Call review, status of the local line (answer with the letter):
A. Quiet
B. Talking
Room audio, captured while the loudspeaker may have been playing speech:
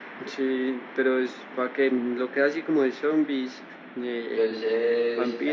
B